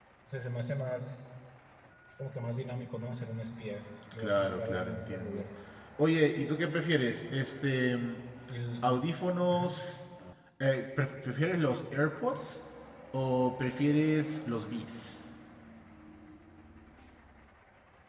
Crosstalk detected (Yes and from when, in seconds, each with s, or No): Yes, from 4.2 s